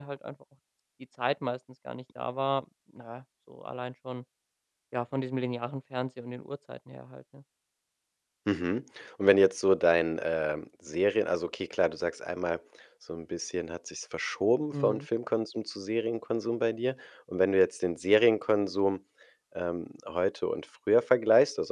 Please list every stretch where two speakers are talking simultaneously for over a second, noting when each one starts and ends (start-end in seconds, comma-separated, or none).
none